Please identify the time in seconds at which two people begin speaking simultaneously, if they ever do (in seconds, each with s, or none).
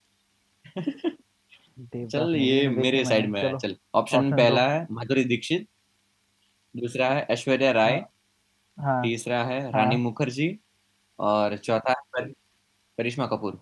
2.2 s